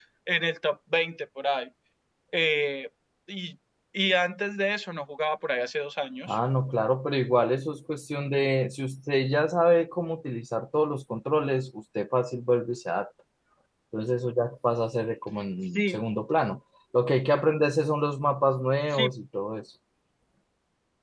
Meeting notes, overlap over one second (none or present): none